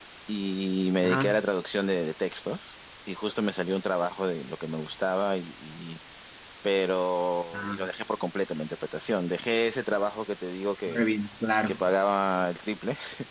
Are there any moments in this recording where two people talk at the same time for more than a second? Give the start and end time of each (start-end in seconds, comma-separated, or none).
none